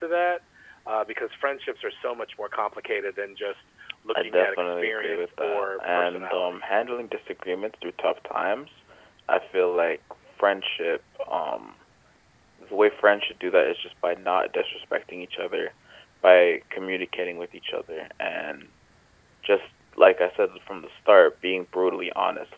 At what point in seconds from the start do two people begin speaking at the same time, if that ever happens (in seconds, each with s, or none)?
4.1 s